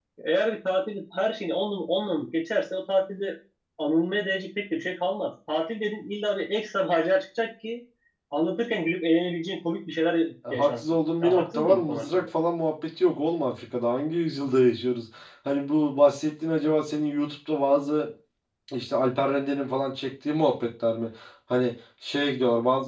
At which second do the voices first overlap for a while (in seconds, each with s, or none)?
10.4 s